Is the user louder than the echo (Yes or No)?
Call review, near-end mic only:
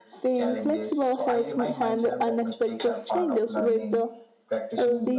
Yes